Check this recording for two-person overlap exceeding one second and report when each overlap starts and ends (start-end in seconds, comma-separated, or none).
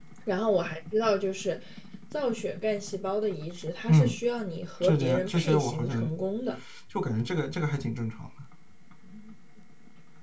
4.8-6.1